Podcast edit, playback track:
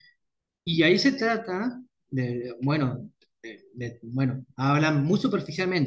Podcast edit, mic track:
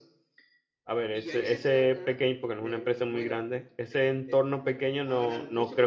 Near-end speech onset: 1 s

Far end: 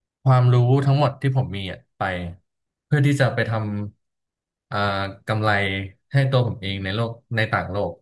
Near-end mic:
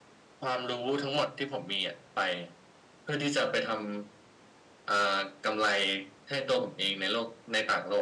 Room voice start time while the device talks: none

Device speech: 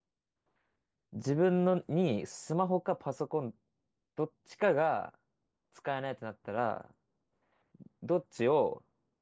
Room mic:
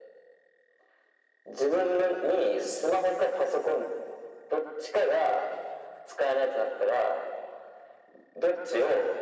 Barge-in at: none

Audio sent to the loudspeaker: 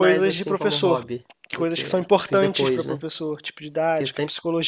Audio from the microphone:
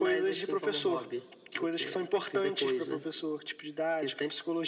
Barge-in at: none

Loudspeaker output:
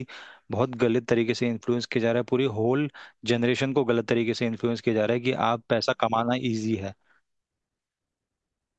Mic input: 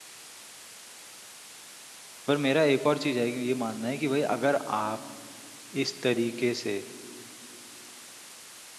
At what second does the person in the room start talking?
2 s

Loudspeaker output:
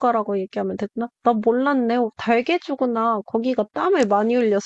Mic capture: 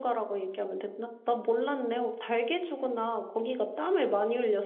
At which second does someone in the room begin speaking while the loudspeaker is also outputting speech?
none

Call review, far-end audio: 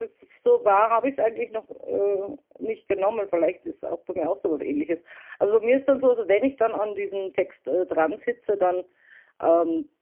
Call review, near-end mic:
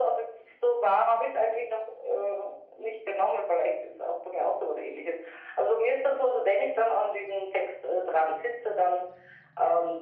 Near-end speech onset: none

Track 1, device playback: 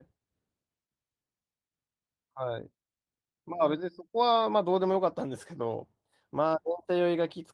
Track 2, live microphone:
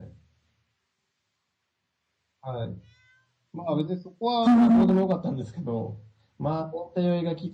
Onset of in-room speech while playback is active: 4 s

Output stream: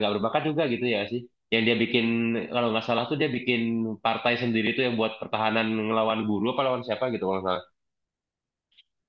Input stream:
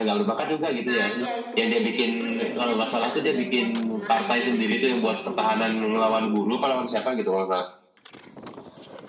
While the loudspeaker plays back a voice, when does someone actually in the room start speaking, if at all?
1 s

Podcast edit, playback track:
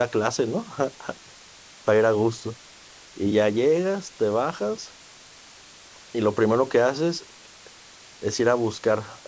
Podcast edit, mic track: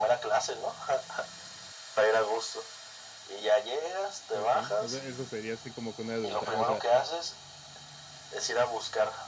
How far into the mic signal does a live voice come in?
4 s

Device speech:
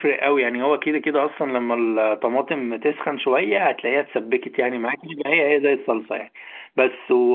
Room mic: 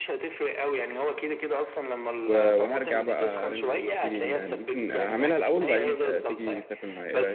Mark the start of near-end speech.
2 s

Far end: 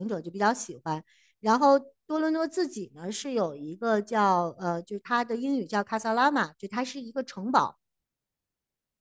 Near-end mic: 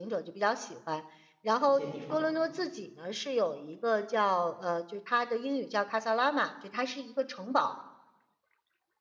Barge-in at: 2 s

